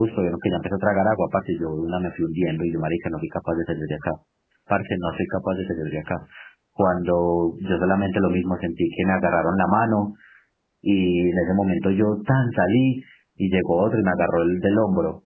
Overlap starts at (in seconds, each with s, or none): none